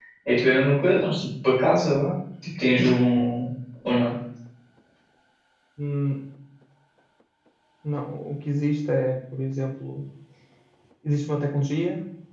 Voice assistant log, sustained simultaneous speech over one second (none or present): none